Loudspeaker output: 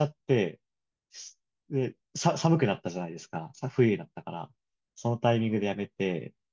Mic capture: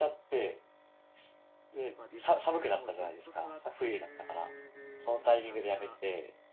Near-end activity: present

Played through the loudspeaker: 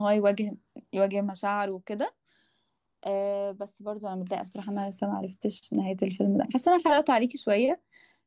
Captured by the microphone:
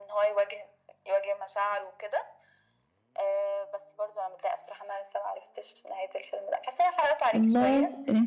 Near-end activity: present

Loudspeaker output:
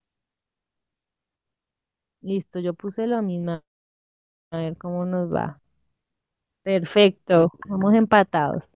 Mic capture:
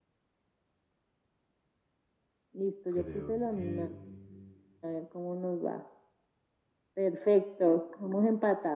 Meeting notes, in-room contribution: present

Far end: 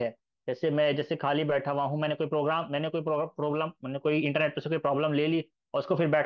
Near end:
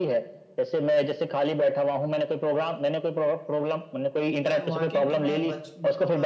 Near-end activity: present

